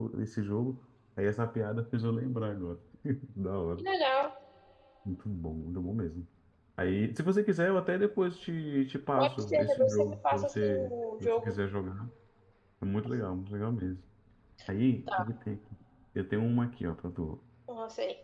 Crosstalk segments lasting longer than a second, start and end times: 9.2-11.6

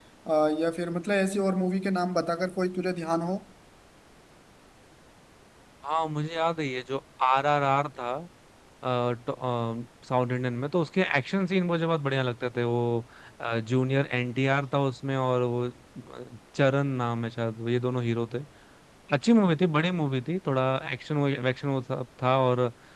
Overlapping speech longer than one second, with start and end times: none

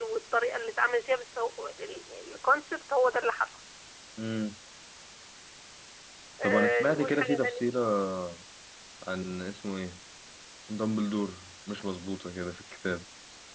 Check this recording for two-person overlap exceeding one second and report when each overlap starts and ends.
6.4-7.7

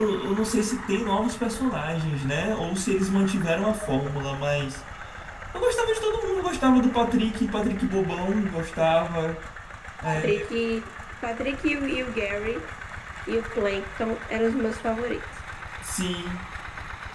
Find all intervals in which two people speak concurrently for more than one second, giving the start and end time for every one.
none

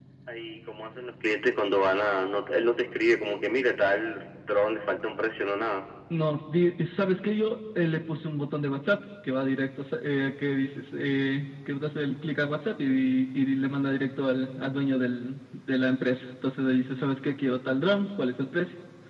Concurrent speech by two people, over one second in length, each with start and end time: none

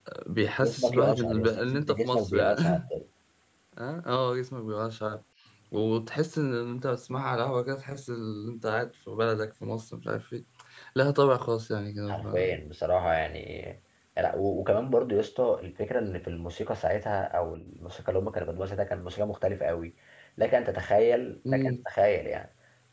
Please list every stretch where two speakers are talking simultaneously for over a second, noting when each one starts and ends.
0.6-2.8

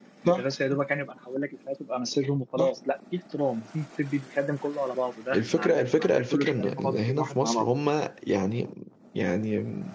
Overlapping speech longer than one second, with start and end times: 5.3-7.7

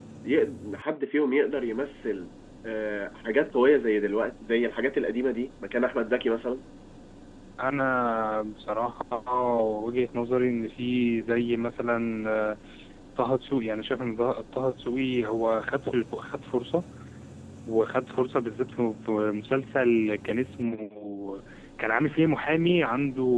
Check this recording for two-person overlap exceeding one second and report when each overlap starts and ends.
none

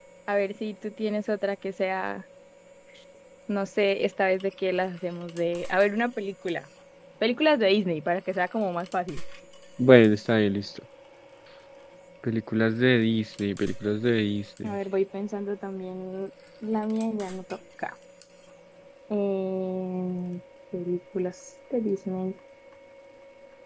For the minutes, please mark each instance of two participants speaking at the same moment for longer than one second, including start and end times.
none

